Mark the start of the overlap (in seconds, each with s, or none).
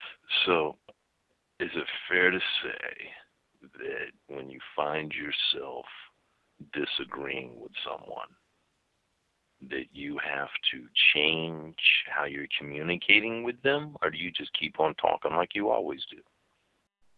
none